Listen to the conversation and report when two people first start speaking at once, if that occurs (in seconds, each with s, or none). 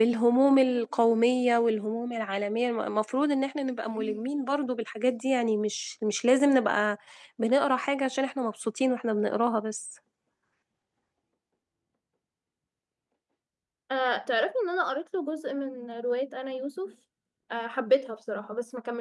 none